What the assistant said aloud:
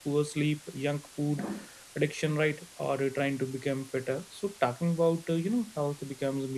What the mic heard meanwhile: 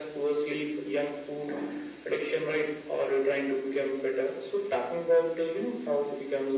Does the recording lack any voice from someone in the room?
Yes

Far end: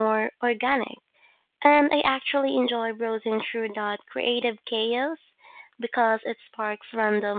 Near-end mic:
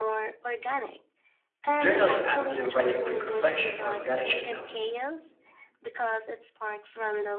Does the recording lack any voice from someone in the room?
No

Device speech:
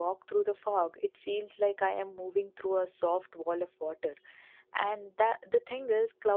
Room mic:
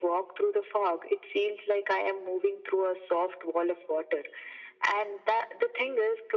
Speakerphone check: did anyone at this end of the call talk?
No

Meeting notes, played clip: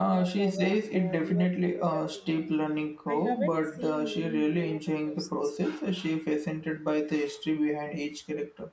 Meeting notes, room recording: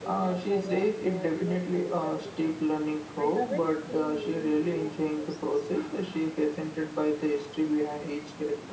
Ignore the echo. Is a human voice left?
No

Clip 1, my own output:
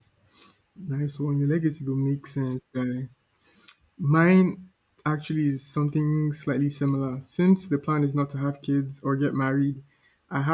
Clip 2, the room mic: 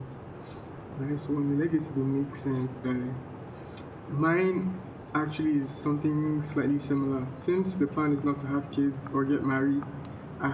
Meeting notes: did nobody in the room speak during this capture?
Yes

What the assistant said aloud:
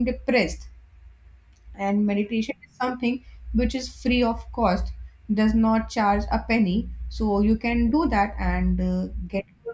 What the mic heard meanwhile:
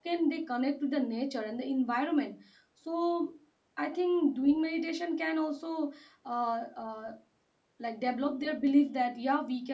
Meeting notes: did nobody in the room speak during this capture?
No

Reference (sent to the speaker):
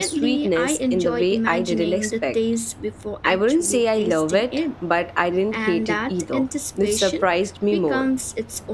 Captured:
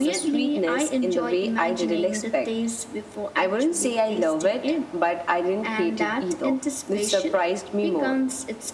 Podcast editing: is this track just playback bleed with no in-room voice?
Yes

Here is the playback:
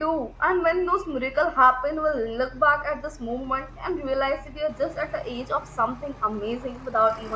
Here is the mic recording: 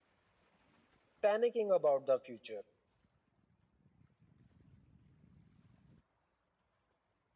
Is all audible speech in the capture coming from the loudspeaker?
No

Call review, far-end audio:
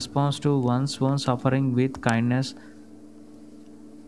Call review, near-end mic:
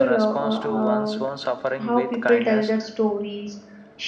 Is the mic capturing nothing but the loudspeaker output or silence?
No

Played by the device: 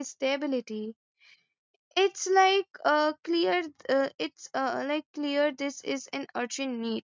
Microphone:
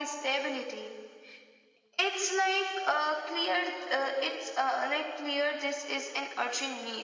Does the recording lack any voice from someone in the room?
Yes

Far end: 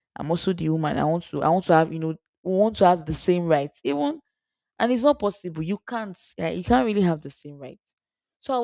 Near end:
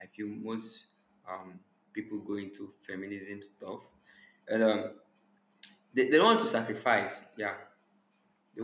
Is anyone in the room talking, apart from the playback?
Yes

